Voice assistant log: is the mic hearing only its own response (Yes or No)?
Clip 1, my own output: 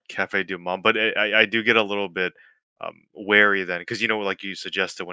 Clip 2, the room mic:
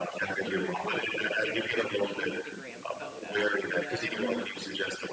No